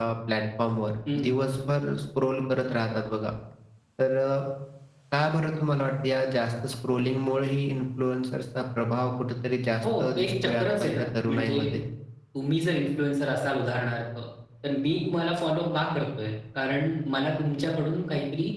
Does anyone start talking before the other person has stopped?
Yes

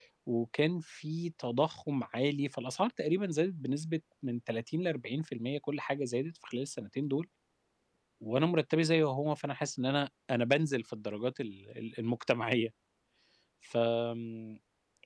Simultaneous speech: No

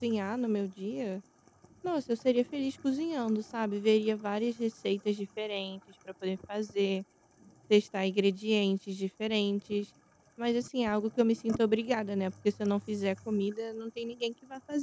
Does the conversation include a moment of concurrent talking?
No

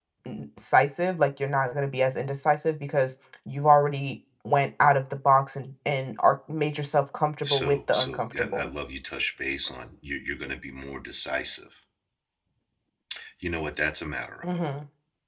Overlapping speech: Yes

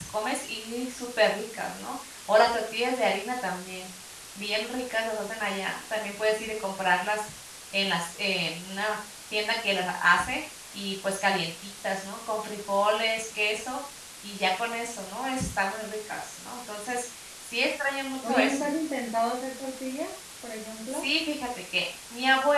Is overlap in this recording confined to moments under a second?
Yes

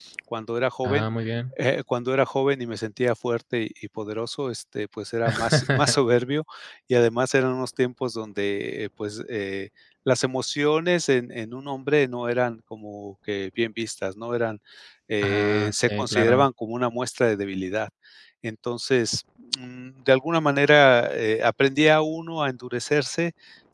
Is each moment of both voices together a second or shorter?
No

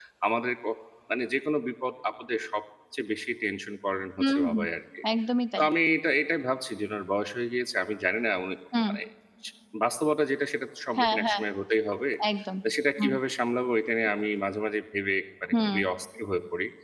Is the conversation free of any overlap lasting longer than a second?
Yes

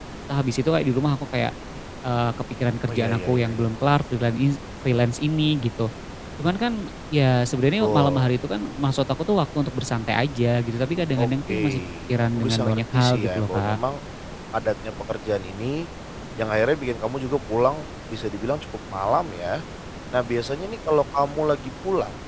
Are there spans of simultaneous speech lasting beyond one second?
Yes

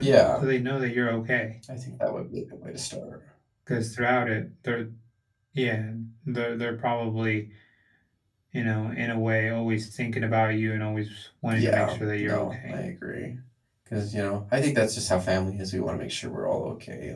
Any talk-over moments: Yes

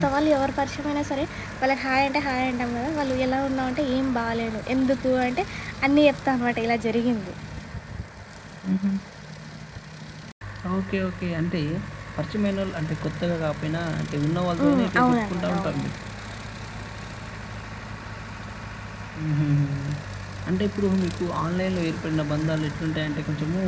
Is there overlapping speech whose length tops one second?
Yes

